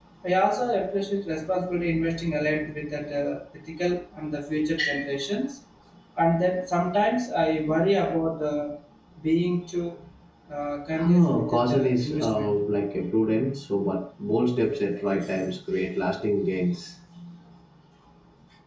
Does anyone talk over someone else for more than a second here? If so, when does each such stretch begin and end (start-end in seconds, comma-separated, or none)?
10.9-12.6